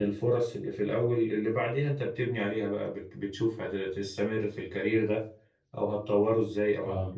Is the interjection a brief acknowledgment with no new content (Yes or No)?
Yes